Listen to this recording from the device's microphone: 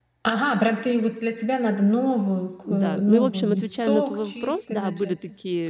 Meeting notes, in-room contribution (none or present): present